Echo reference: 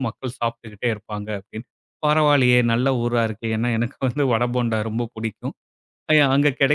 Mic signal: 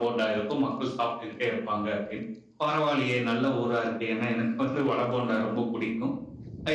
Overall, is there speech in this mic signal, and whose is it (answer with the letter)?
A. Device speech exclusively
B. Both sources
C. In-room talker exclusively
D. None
A